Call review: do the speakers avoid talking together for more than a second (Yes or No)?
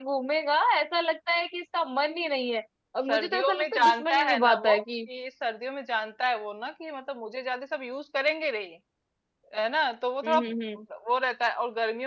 No